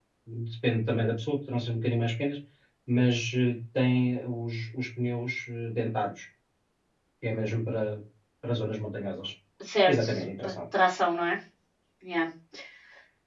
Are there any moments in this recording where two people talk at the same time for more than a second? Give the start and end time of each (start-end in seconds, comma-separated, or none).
none